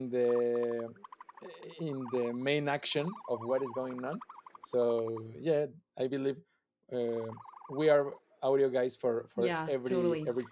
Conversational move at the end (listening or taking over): taking over